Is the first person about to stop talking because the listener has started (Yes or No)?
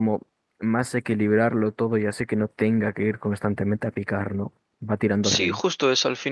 Yes